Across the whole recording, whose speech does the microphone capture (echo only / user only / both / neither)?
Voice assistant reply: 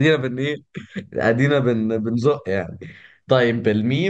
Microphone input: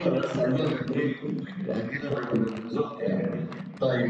echo only